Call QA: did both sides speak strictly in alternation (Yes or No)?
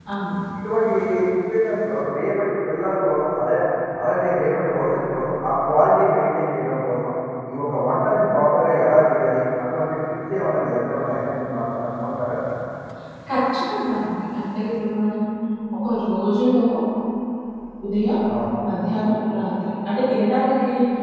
Yes